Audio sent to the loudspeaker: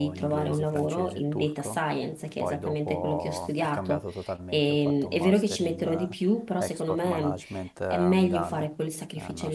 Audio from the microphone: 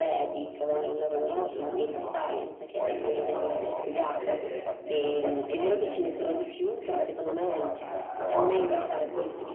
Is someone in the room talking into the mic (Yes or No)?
Yes